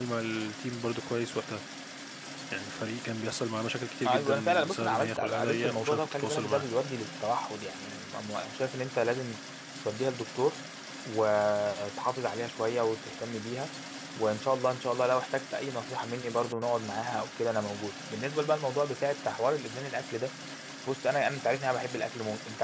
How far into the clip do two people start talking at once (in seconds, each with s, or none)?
4.0 s